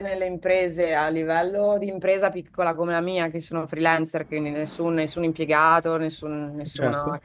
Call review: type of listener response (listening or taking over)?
listening